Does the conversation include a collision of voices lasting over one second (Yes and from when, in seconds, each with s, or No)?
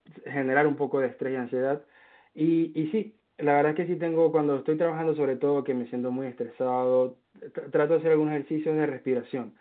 No